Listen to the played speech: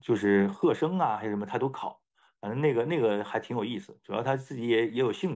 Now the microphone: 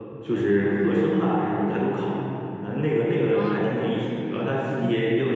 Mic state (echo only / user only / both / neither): both